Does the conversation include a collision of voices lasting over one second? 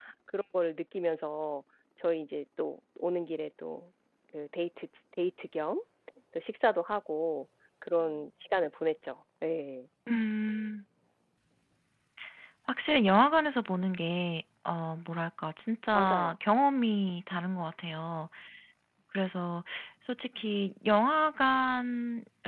No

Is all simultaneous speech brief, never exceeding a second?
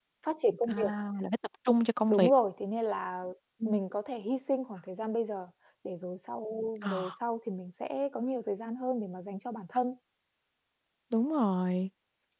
Yes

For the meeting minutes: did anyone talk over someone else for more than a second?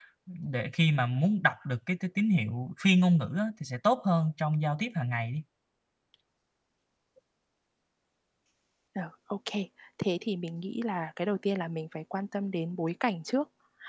No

